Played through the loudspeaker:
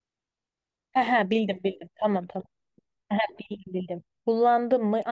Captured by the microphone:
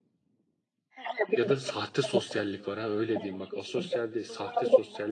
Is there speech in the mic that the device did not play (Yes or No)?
Yes